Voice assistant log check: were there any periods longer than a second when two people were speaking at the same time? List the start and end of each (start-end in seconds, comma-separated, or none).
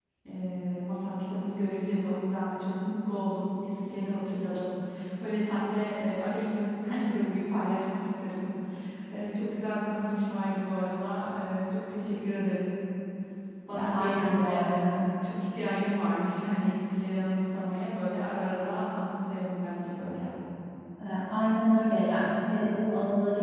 13.7-15.0